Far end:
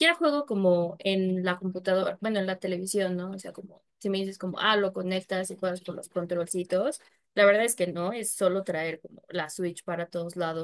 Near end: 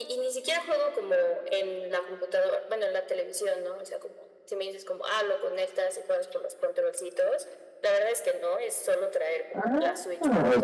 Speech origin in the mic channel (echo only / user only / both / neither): both